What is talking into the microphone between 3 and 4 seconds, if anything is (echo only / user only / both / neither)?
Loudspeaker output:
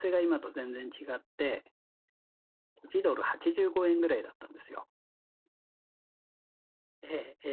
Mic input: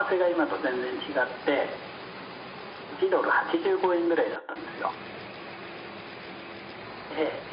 echo only